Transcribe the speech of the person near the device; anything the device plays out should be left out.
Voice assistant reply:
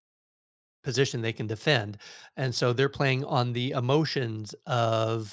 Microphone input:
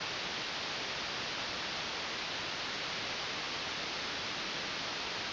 none

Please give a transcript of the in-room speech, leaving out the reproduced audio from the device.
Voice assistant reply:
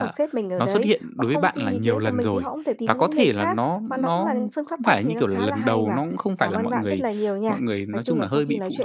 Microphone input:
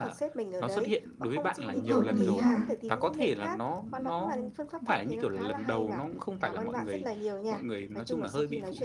Cũng hợp lý ha.

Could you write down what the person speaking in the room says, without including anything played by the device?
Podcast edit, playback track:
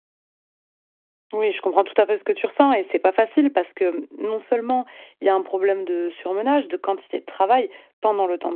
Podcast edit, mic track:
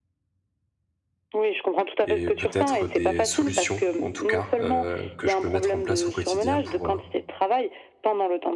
et peut-être des solutions en tout cas, heu, que je peux mettre en place au quotidien pour, heu,

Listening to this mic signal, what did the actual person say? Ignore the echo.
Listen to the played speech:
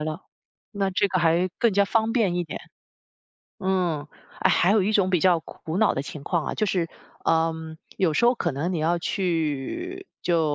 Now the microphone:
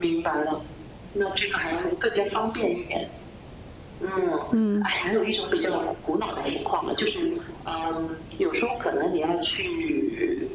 嗯，

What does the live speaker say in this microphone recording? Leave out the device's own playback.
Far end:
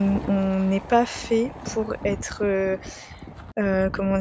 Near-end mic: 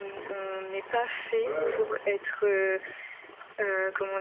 ouais, ouais, ouais,

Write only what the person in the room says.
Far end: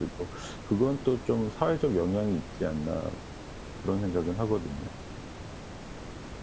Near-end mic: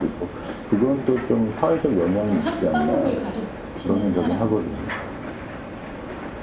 어떤 학과목을 가르치는 사람

